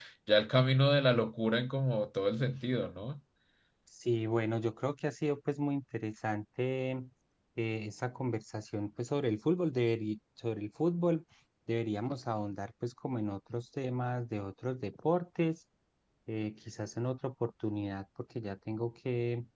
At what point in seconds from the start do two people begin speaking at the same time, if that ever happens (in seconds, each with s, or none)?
none